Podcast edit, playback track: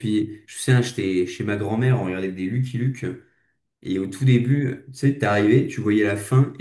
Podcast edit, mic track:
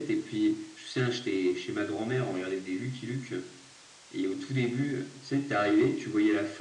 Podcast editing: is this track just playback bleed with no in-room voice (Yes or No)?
Yes